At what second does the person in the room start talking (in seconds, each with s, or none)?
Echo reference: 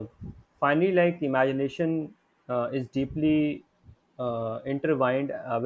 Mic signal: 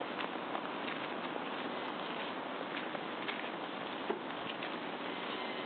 none